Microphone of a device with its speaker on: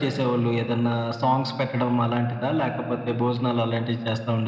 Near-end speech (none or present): none